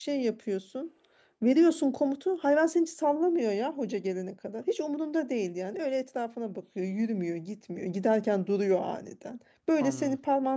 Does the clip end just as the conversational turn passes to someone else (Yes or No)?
No